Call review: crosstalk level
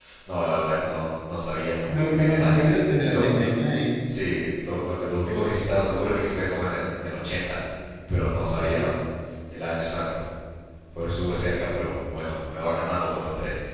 present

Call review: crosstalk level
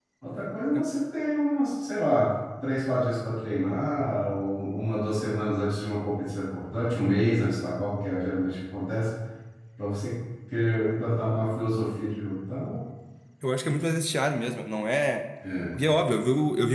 none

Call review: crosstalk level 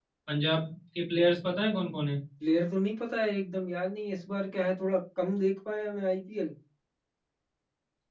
none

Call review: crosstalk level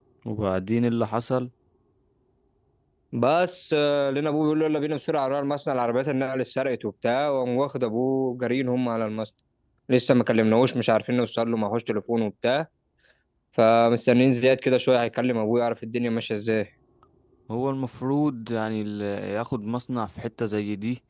none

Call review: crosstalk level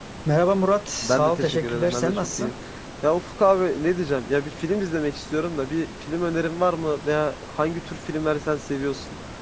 present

